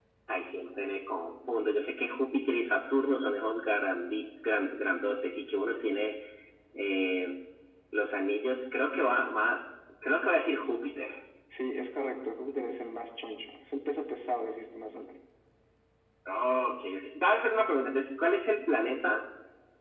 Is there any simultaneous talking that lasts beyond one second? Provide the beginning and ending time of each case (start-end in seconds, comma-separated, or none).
none